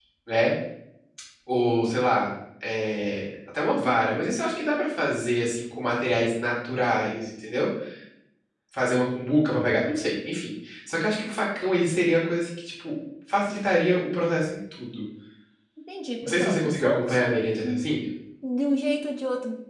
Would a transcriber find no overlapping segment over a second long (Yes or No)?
No